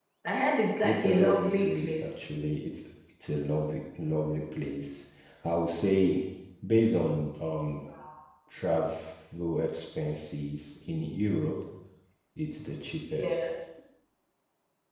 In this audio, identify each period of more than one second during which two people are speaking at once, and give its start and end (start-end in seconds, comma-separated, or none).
0.8-2.1